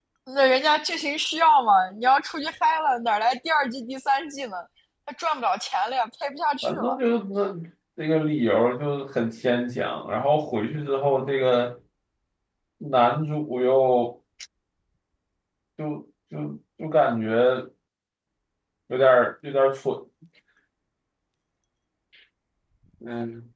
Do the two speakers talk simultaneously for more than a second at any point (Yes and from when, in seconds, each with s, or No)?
No